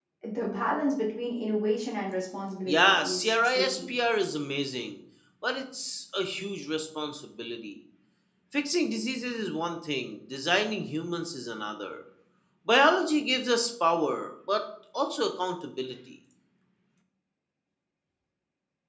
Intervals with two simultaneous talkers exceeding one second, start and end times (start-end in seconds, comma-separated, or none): 2.6-3.9